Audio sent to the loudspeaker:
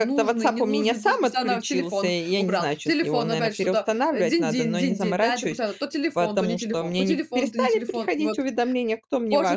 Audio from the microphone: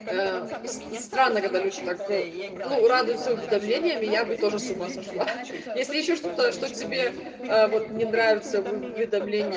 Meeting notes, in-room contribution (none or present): present